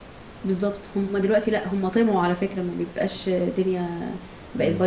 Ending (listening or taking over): listening